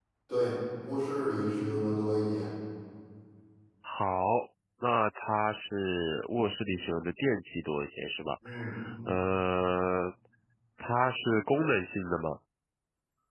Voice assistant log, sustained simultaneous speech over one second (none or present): none